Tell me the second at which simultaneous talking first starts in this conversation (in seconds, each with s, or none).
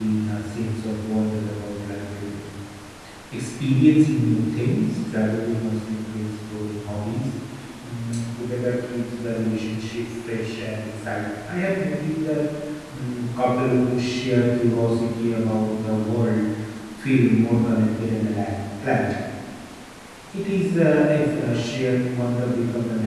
none